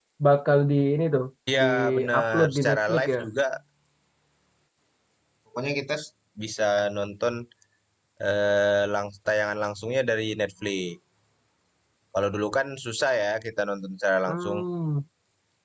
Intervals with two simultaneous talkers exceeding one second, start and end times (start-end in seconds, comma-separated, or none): 1.5-3.2